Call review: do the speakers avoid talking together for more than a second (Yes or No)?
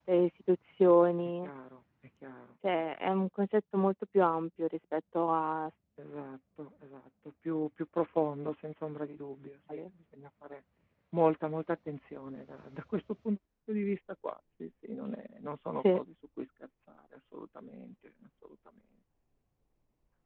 Yes